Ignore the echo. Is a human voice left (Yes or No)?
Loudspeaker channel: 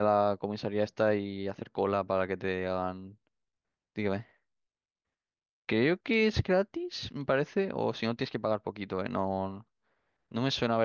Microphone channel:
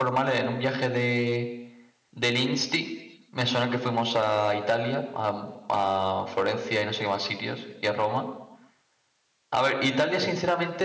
Yes